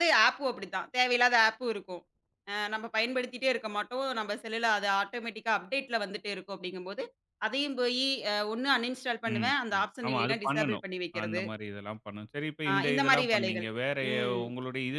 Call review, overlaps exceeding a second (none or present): present